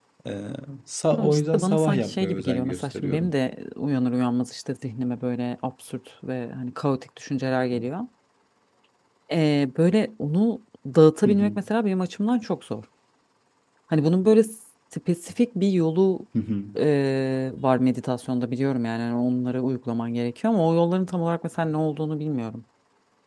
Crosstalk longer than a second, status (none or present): present